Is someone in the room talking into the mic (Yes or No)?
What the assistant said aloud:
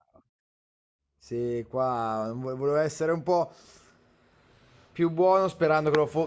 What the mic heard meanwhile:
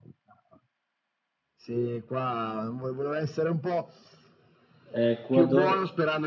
Yes